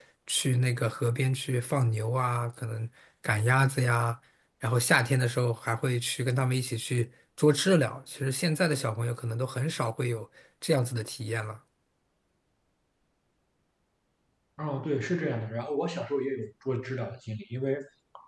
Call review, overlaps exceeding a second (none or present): none